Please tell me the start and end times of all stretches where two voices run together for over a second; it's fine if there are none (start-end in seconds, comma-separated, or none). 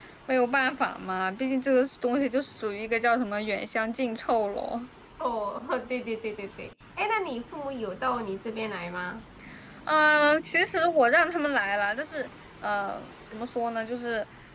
none